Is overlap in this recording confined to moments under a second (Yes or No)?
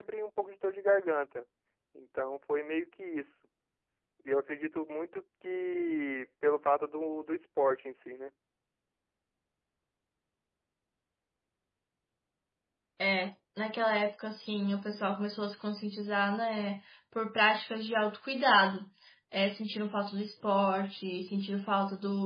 Yes